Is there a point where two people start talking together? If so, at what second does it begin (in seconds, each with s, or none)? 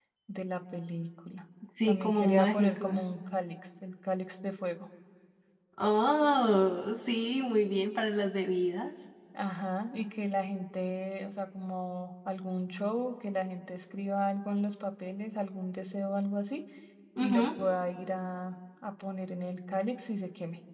1.8 s